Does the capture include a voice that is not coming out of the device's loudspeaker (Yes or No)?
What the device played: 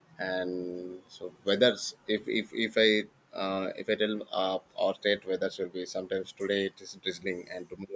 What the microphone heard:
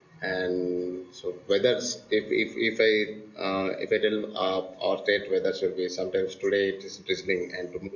No